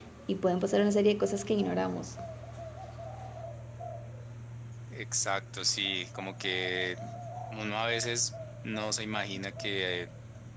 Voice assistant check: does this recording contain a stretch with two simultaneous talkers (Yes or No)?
No